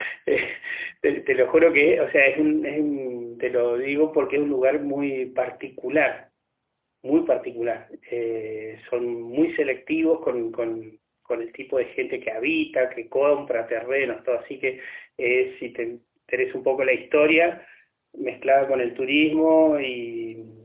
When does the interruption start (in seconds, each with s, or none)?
none